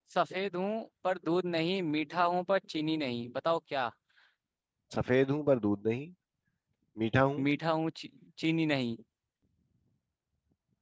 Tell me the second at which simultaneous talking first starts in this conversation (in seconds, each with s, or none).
none